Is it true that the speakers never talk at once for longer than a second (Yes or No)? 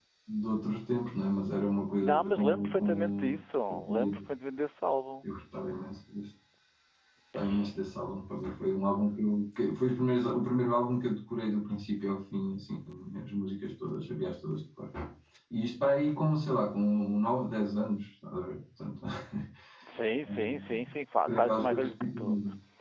No